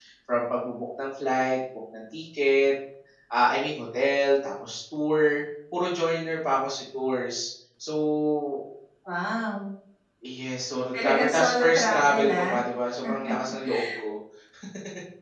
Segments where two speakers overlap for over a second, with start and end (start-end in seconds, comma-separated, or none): 11.0-12.5